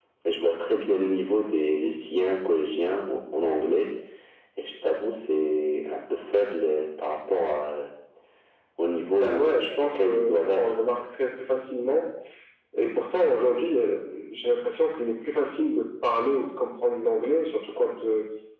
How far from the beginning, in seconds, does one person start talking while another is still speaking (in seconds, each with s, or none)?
9.2 s